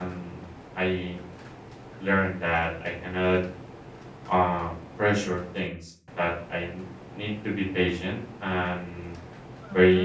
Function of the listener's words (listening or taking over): listening